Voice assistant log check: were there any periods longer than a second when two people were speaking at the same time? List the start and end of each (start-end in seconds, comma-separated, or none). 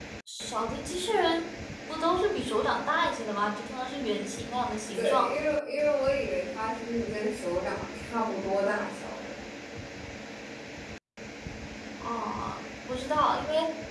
none